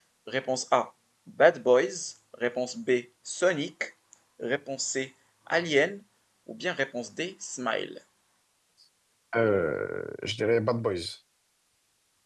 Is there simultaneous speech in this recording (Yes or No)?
No